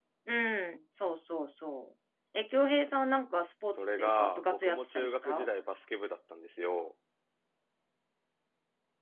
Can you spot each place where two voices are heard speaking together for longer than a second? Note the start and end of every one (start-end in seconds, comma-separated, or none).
3.7-5.5